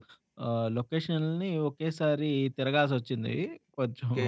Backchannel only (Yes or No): No